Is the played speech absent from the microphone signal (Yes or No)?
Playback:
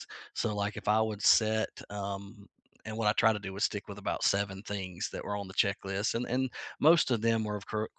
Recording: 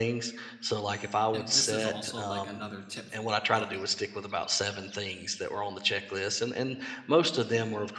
No